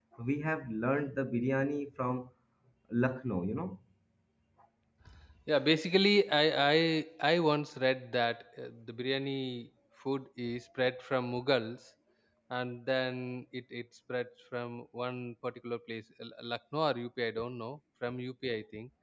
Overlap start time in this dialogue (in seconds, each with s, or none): none